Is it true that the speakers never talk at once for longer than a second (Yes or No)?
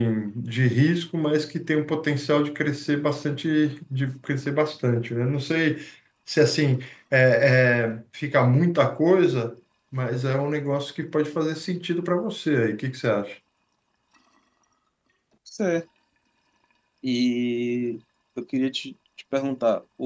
Yes